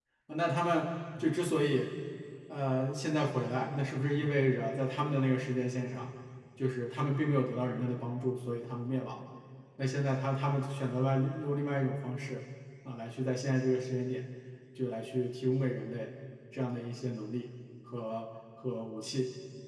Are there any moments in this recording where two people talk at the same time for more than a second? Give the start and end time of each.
none

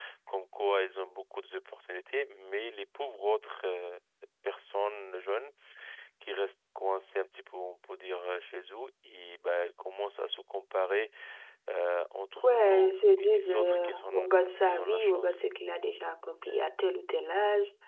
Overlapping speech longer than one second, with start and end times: 12.4-15.4

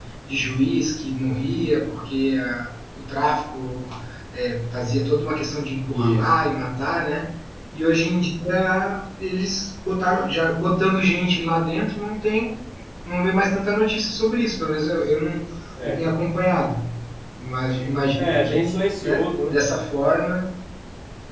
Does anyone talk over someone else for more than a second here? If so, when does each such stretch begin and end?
18.1-19.6

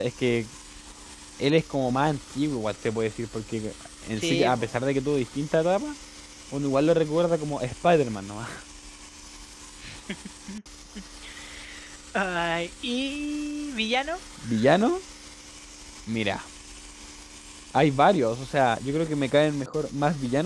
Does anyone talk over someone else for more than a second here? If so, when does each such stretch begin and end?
none

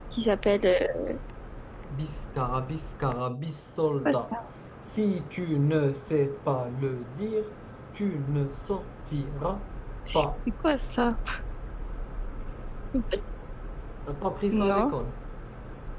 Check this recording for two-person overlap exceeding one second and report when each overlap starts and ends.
none

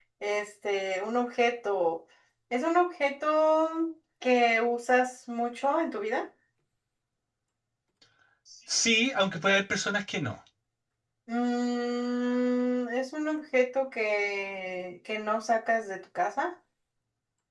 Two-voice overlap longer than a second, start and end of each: none

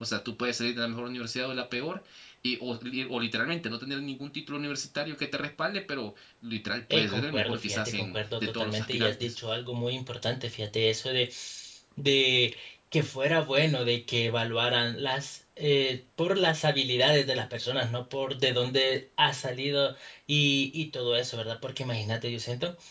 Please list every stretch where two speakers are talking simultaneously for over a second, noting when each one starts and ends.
6.9-9.4

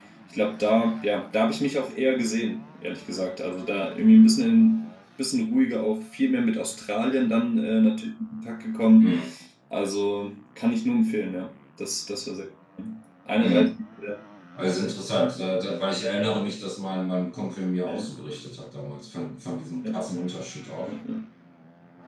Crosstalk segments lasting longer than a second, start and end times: none

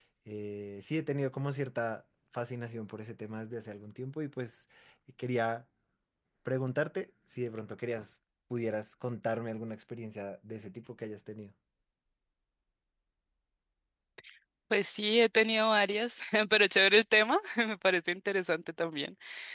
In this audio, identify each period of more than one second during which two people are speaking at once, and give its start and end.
none

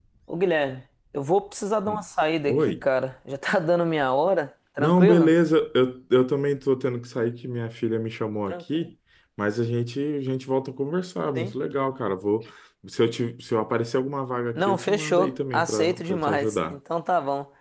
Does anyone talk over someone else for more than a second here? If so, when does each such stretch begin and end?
14.6-16.8

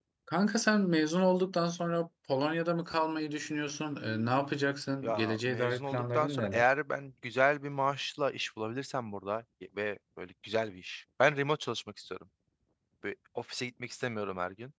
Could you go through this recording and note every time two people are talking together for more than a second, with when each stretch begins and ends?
5.0-6.7

